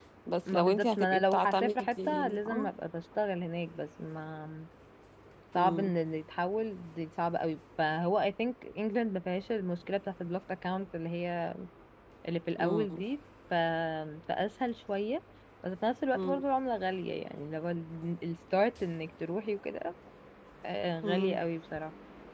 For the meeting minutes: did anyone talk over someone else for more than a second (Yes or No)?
Yes